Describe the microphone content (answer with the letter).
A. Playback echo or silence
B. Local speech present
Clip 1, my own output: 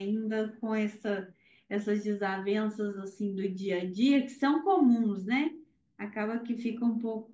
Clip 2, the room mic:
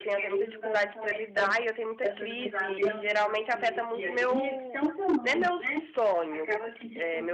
B